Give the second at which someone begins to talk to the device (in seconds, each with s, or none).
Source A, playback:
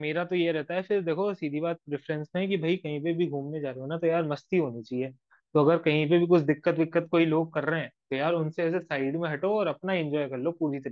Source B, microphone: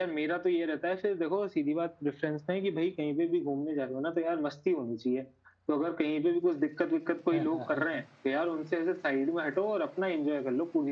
7.3 s